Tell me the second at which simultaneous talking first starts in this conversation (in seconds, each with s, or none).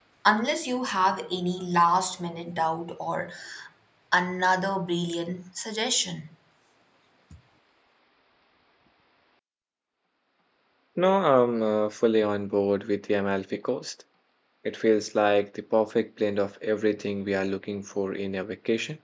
none